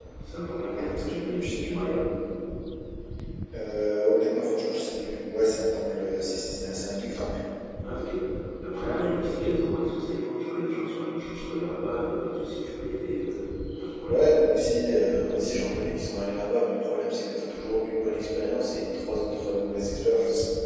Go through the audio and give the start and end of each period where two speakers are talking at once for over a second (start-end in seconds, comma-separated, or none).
0.6-1.9